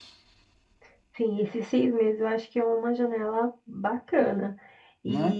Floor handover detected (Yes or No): No